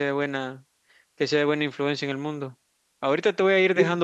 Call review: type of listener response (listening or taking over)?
listening